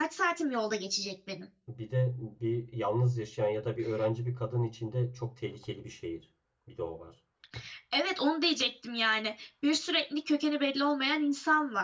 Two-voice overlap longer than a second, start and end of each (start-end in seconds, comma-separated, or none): none